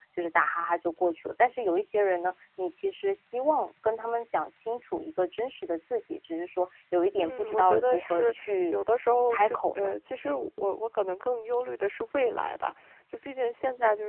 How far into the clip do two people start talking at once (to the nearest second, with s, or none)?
7 s